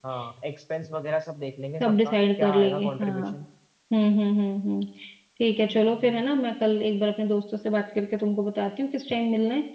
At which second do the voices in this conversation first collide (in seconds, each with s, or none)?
1.8 s